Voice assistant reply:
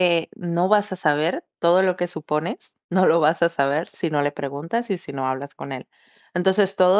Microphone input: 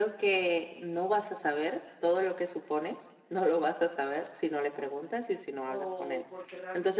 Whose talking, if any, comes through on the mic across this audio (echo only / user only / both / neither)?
both